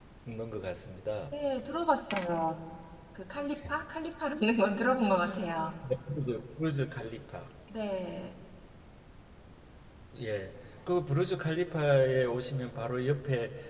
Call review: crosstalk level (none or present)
none